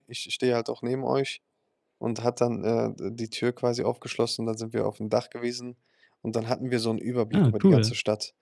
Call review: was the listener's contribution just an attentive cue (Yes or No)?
Yes